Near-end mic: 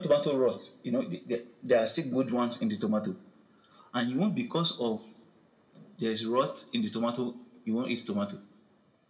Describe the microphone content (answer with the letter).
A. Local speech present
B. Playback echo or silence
B